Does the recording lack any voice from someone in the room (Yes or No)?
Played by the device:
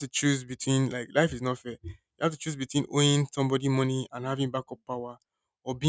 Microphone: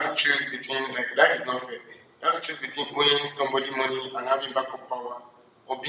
Yes